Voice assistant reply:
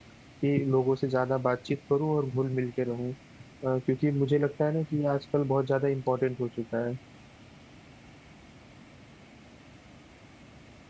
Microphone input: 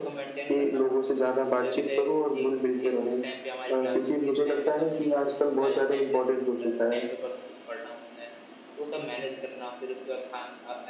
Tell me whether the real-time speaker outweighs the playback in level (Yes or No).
No